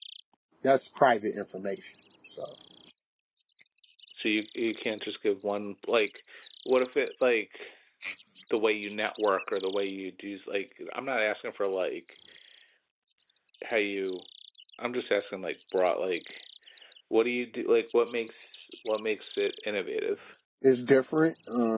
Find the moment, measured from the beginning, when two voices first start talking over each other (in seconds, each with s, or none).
none